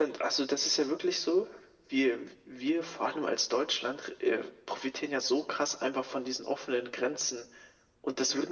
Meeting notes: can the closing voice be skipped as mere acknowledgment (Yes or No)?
Yes